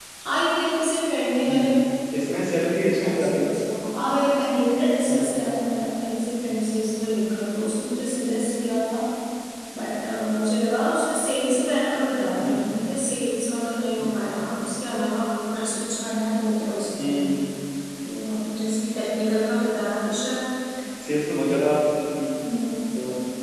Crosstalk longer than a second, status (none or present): none